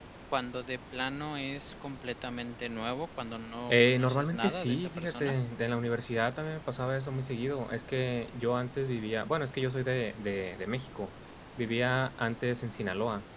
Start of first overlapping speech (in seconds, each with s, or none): 3.7 s